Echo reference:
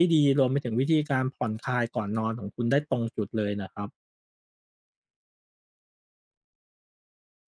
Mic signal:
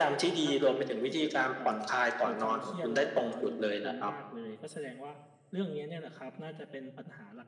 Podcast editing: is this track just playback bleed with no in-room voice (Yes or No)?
No